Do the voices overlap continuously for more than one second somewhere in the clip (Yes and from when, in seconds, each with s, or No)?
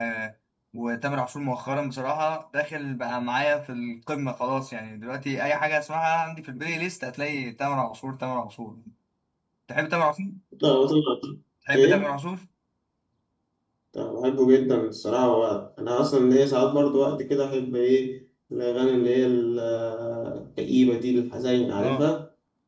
No